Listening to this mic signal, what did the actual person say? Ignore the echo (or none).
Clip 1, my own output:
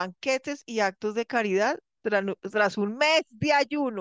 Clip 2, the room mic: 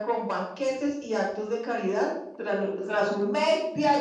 none